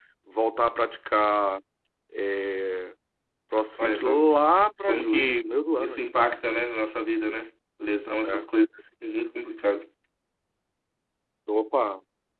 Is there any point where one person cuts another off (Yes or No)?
Yes